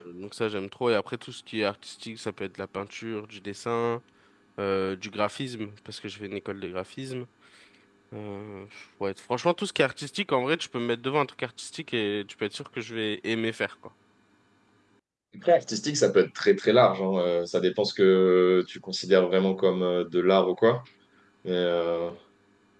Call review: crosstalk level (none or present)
none